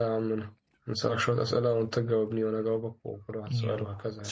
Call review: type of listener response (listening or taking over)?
taking over